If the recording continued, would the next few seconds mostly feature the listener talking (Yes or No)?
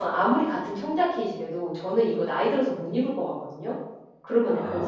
Yes